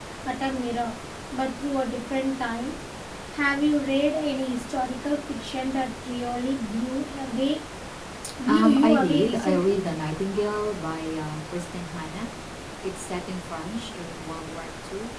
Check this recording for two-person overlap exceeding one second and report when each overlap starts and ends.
8.5-9.8

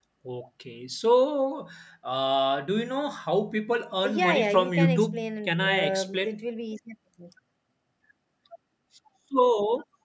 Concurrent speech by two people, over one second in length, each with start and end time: 4.0-6.4

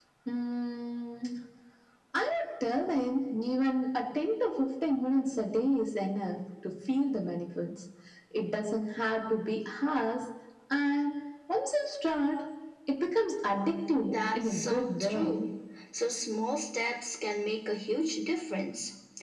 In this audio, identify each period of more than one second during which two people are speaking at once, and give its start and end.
14.1-15.4

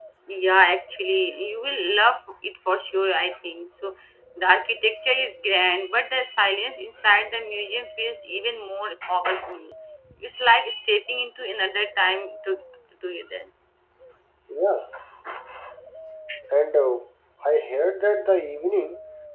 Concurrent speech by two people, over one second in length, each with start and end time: none

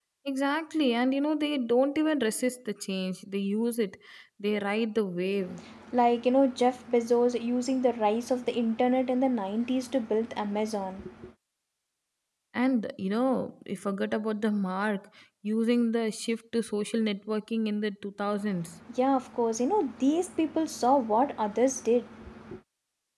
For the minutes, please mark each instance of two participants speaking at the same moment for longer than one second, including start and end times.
none

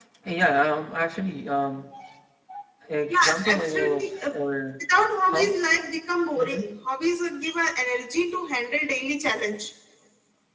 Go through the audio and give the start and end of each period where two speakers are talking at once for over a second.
3.1-4.3

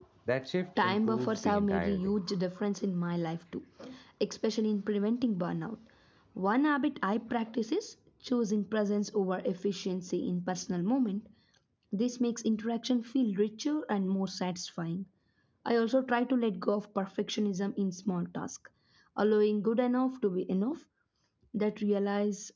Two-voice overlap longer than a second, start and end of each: 0.8-2.2

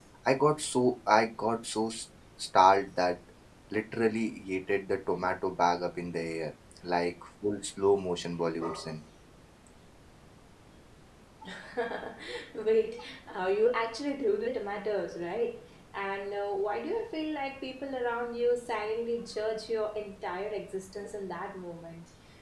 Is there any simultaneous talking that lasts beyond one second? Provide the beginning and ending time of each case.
none

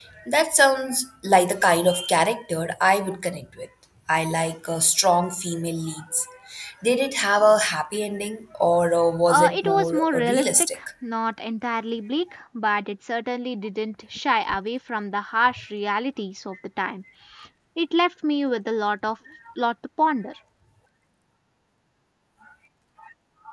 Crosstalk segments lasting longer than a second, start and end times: 9.3-10.8

